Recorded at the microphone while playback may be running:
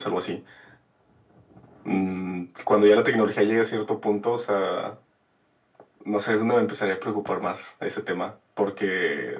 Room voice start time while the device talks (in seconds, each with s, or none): none